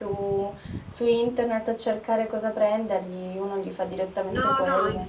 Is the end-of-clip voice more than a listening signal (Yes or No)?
Yes